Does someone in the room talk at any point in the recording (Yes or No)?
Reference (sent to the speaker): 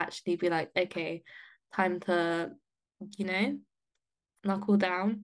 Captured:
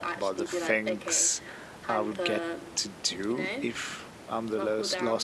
Yes